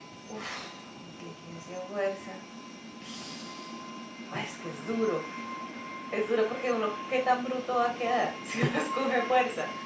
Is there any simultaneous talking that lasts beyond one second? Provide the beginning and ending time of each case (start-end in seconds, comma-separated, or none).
none